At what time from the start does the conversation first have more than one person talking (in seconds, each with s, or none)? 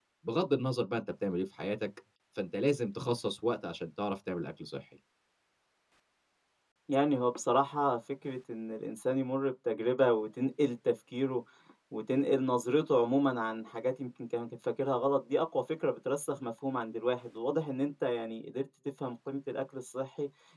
none